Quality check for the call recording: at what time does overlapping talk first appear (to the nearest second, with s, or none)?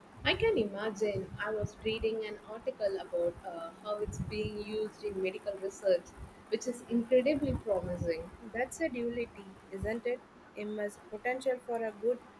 none